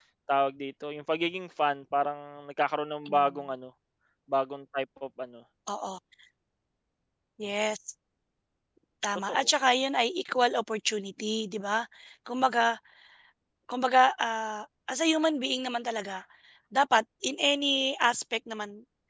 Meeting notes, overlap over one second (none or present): none